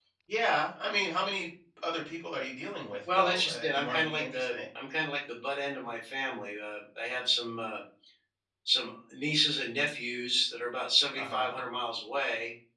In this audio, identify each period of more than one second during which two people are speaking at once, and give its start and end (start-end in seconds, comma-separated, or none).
3.1-4.5